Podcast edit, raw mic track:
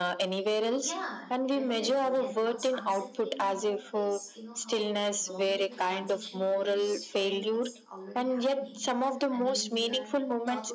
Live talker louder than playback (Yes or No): No